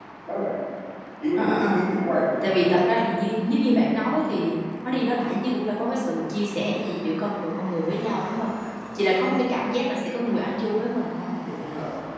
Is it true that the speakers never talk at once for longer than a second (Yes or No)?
Yes